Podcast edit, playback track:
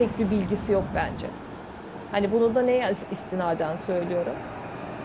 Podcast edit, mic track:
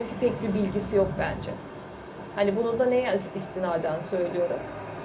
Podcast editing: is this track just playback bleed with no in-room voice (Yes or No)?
Yes